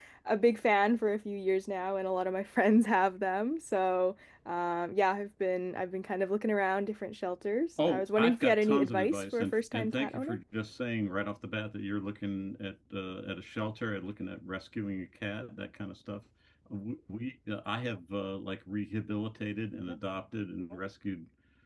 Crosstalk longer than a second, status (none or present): present